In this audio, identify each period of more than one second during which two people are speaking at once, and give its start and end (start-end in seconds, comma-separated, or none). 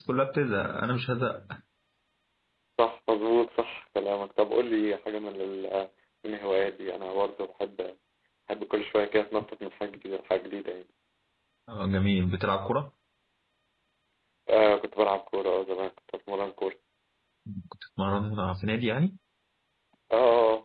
none